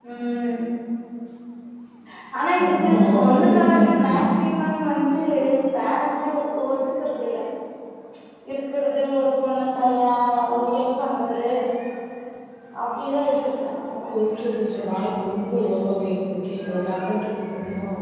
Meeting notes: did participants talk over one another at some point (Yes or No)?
Yes